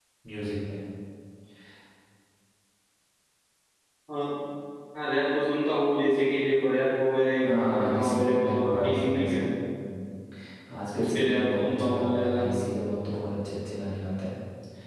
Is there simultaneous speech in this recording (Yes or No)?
Yes